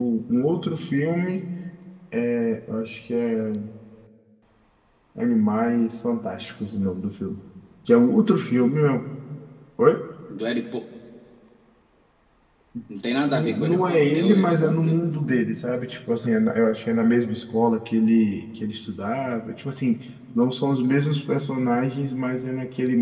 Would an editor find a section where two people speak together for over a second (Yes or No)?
Yes